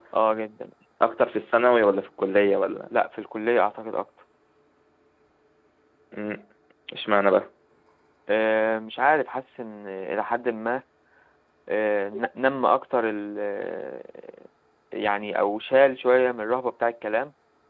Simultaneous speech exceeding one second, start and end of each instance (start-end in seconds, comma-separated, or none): none